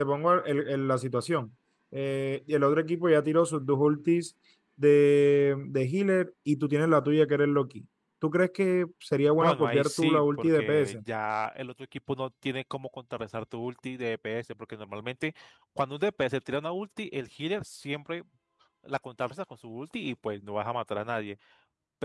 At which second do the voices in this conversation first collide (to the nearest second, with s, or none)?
9 s